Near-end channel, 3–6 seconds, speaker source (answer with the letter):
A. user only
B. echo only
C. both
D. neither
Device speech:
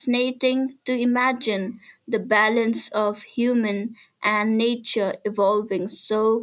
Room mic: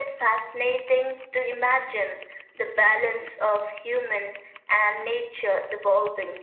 B